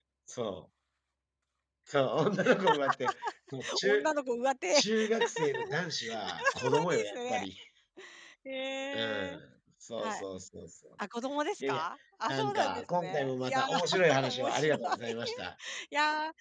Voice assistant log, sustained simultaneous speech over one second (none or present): present